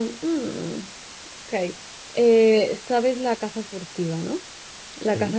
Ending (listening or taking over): listening